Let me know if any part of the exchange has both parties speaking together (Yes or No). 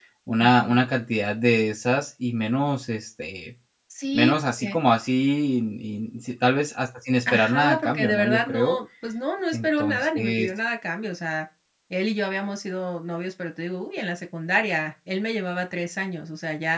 Yes